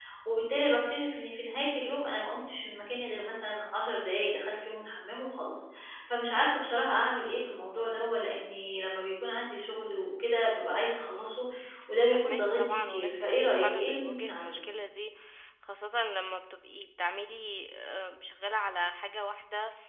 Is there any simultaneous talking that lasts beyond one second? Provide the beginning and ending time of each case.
12.1-14.6

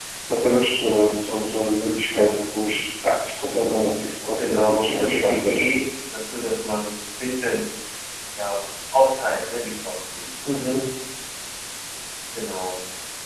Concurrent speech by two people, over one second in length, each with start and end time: 4.4-5.6

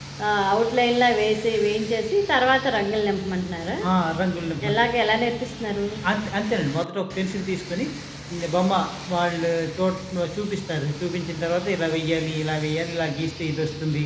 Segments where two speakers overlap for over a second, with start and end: none

